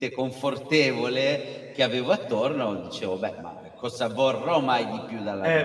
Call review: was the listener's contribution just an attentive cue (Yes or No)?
No